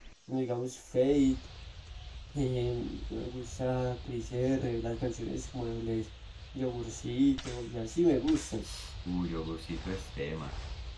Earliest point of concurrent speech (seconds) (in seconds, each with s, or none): none